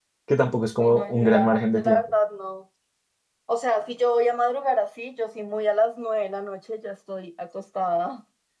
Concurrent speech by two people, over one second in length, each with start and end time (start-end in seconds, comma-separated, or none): 0.8-2.0